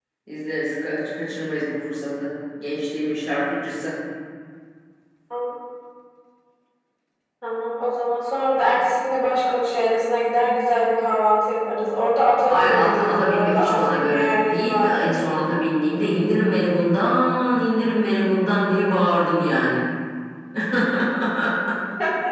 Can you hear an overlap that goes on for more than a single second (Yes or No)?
Yes